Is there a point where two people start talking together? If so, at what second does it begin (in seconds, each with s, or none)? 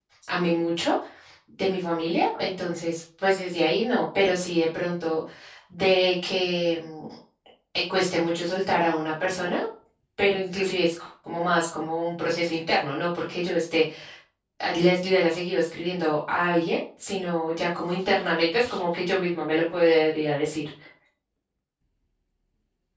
none